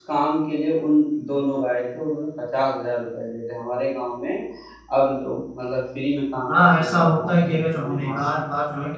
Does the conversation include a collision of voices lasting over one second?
Yes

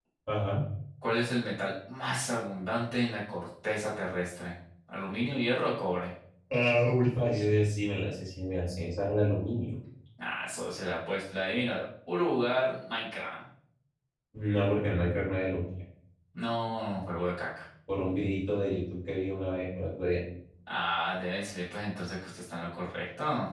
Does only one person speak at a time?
Yes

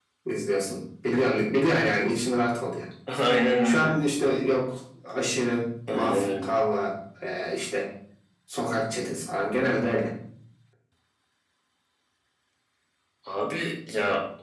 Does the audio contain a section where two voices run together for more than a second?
No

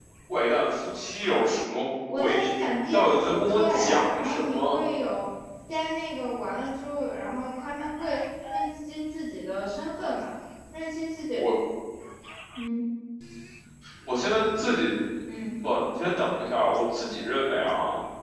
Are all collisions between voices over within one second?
No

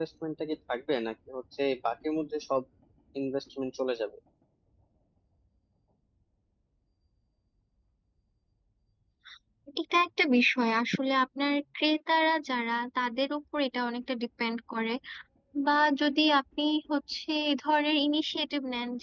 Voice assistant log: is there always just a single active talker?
Yes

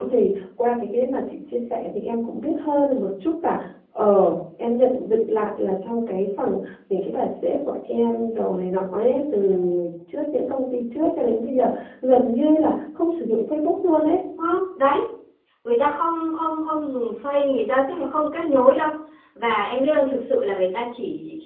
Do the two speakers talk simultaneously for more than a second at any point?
No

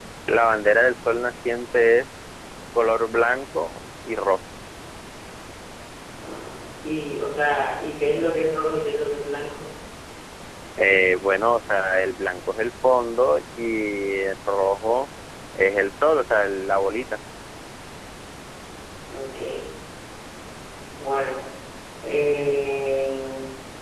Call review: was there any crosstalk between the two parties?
No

